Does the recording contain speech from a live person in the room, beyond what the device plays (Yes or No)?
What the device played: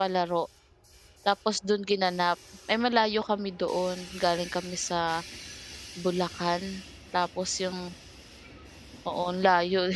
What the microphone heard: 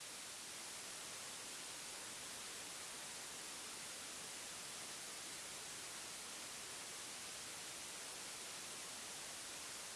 No